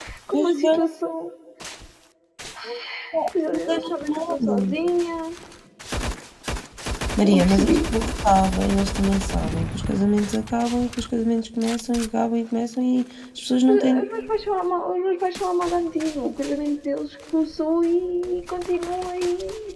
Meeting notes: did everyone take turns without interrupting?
No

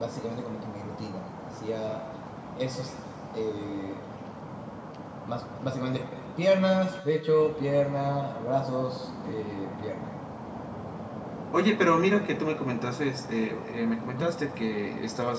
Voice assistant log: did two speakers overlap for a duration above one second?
No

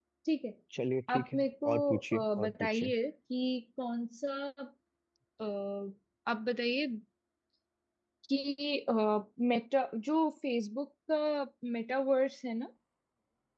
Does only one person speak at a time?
No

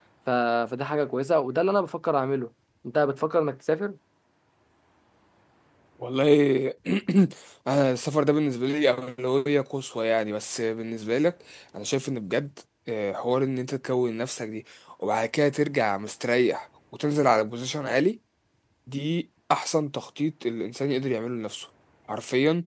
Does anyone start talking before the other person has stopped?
No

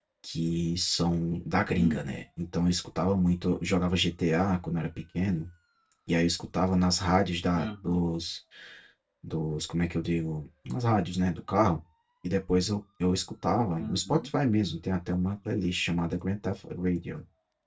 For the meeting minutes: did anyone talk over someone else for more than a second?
No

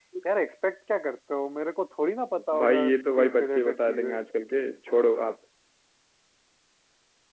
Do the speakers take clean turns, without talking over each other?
No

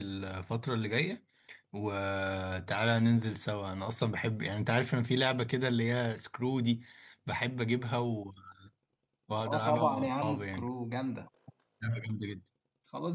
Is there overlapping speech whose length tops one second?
Yes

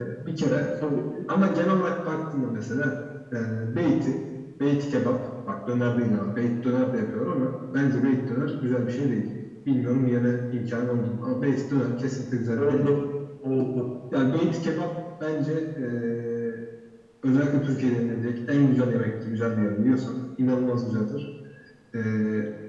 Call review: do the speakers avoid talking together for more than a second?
Yes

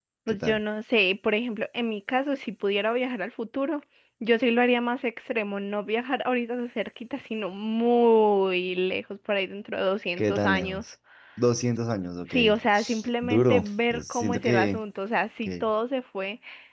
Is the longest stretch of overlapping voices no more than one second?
No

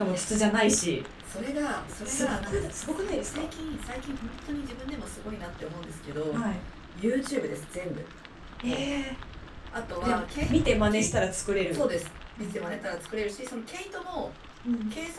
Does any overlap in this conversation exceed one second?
Yes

